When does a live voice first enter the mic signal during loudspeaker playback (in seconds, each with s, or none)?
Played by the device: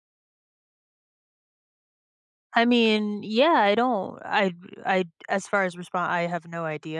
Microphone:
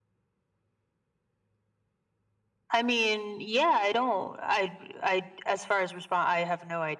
none